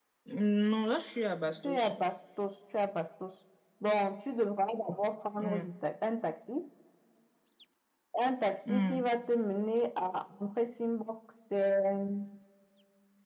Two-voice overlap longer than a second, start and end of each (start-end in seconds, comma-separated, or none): none